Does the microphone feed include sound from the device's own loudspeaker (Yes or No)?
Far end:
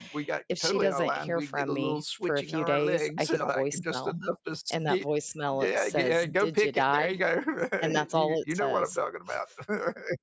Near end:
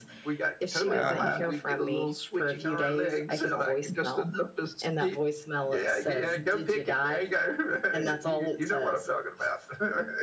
Yes